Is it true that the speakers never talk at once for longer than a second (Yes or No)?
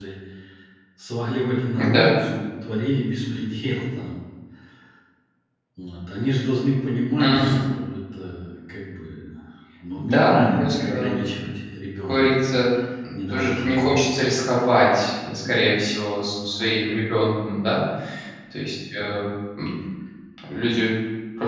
No